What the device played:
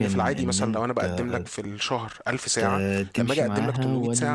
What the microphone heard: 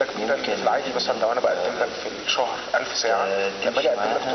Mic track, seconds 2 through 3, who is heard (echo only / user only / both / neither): echo only